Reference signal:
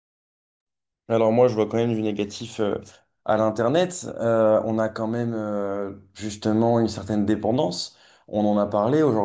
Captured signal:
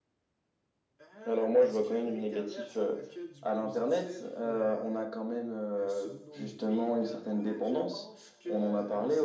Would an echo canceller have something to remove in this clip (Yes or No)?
Yes